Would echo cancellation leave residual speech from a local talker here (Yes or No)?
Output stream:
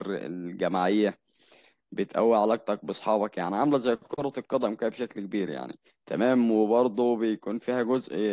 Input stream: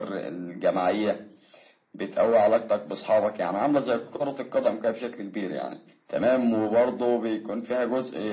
No